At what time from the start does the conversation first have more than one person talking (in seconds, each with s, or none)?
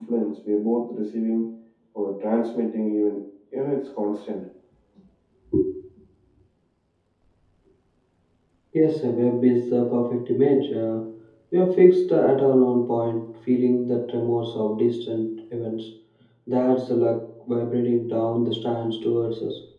none